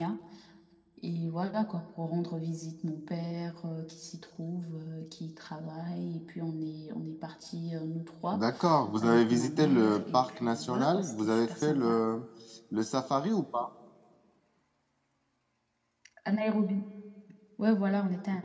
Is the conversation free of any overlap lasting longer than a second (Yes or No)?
No